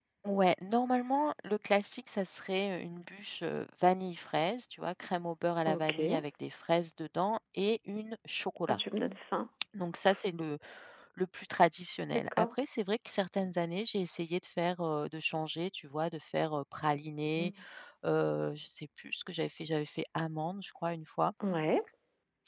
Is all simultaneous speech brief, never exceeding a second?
Yes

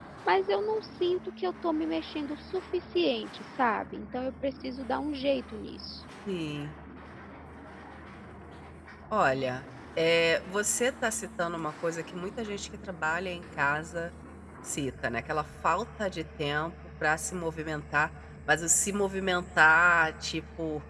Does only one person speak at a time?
Yes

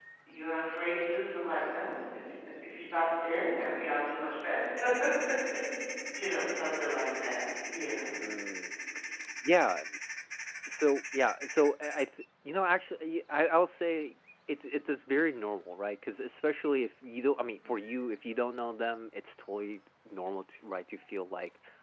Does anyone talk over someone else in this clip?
No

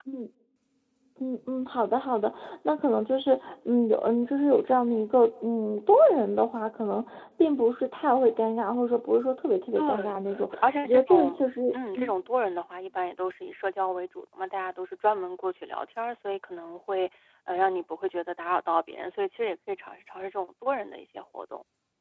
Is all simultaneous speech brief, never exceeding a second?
No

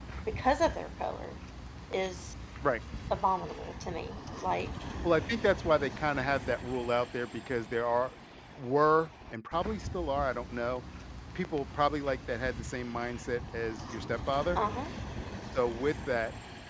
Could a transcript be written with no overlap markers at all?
Yes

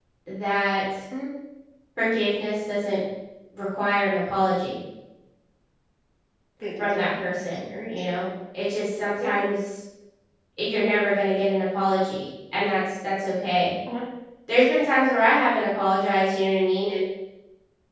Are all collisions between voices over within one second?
No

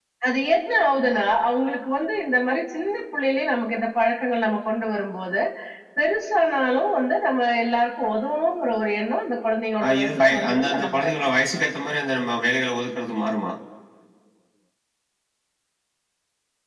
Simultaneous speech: Yes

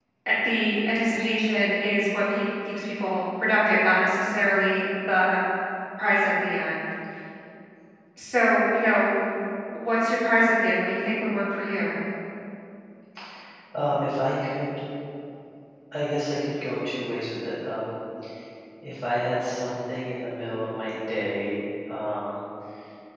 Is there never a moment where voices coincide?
Yes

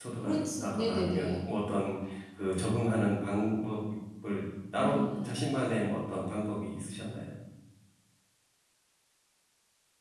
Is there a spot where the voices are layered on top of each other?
Yes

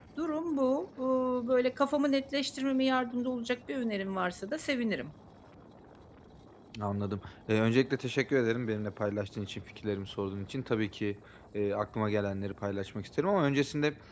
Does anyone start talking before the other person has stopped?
No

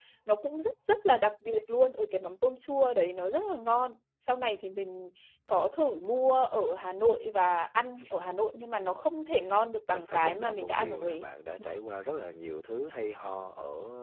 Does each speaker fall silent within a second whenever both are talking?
No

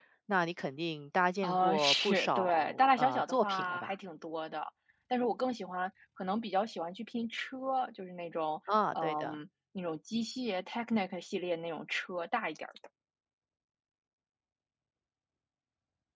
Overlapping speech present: Yes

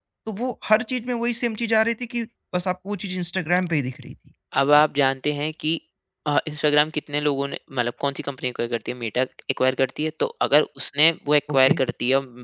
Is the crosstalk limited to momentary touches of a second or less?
Yes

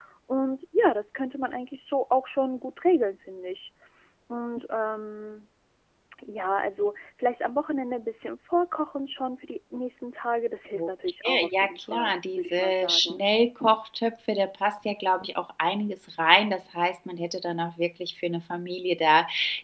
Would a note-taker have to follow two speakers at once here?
Yes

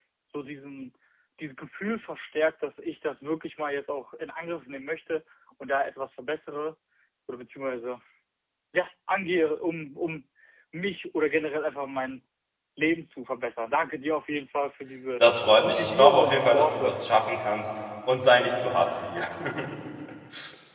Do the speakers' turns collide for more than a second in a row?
Yes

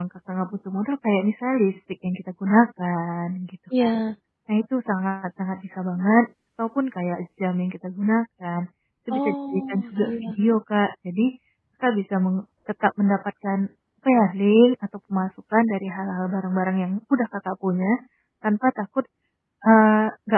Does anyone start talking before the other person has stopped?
Yes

